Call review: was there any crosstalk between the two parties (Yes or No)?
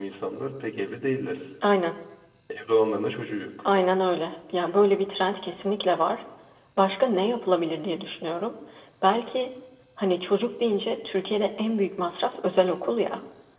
No